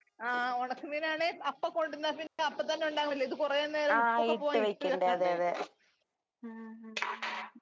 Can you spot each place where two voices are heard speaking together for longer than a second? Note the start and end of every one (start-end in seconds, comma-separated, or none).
4.0-5.3